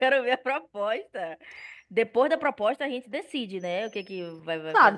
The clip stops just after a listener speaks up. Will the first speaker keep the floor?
No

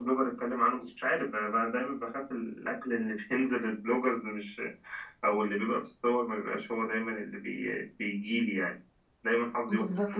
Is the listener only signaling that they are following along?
No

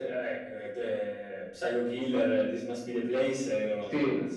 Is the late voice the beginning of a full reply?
Yes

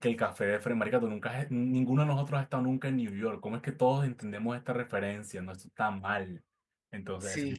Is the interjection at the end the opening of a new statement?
Yes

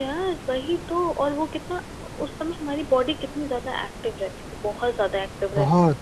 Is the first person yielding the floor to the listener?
No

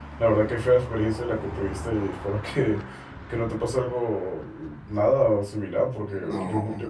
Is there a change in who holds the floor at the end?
No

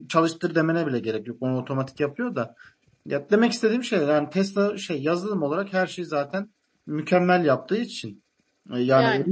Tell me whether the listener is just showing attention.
Yes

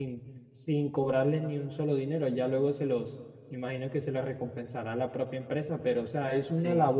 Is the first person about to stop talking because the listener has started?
No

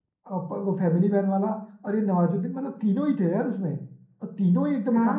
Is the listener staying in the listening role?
No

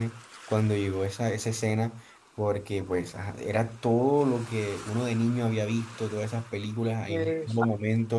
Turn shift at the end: No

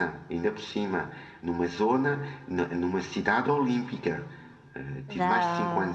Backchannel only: Yes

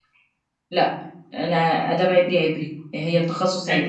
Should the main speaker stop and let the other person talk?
Yes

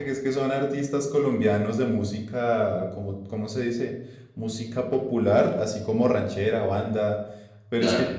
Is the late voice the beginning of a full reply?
No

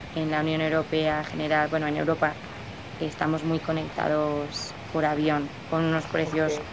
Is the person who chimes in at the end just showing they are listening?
Yes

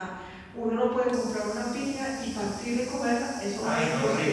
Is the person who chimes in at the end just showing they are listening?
No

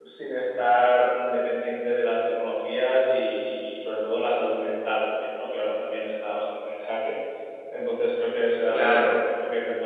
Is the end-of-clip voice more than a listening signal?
No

